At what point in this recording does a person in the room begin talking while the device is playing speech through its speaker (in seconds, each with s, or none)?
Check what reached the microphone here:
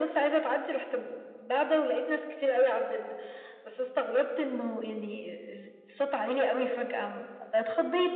none